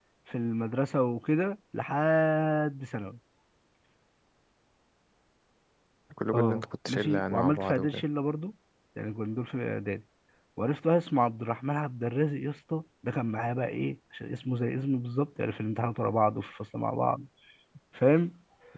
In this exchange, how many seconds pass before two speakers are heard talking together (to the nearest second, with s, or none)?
6 s